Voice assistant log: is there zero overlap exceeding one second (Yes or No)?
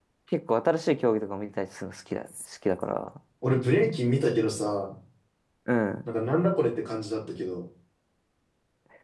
Yes